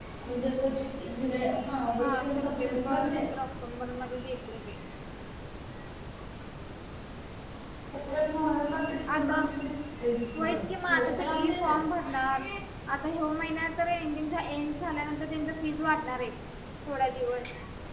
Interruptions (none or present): present